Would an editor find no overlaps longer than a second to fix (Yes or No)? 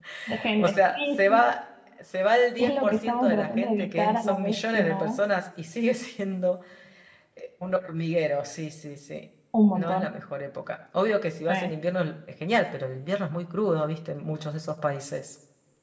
No